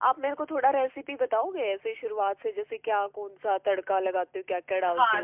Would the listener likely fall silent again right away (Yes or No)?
No